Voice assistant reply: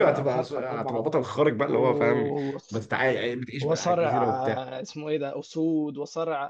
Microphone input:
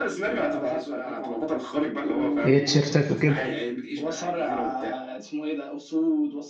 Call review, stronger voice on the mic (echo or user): user